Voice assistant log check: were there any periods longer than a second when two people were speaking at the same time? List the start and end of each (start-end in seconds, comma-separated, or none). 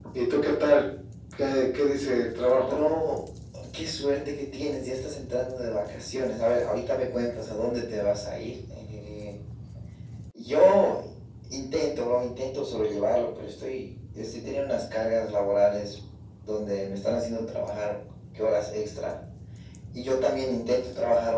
none